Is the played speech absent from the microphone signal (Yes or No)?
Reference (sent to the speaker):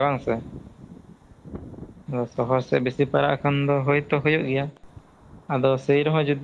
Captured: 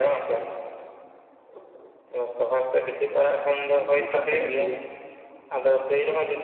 No